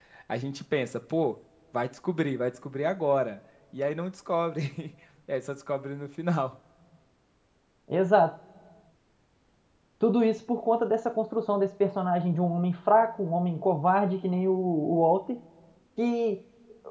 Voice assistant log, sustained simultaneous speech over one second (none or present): none